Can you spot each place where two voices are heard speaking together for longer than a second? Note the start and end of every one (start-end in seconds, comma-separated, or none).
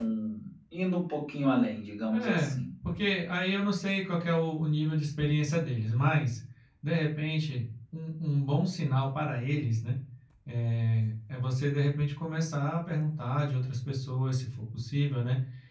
none